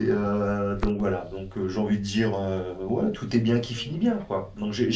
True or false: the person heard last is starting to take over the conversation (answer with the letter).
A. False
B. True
A